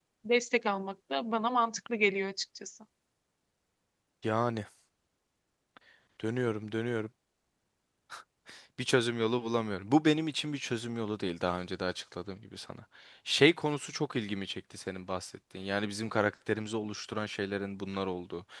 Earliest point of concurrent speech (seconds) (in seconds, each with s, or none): none